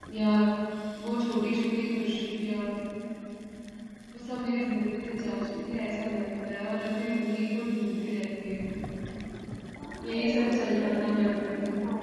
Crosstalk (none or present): present